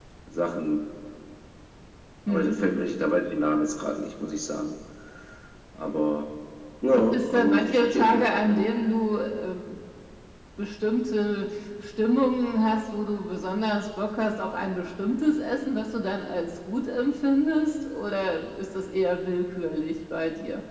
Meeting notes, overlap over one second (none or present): present